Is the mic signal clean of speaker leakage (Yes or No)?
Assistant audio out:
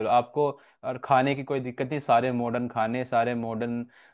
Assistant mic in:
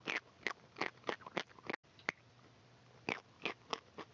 Yes